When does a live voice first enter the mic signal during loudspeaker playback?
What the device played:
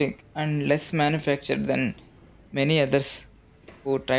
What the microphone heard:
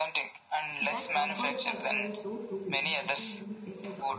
0.8 s

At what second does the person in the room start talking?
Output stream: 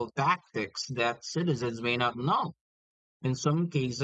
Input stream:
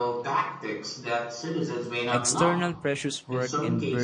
2.1 s

